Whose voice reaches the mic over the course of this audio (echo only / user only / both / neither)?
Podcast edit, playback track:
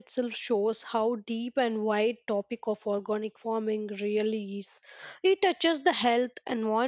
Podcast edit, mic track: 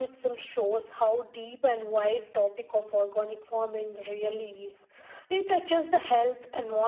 echo only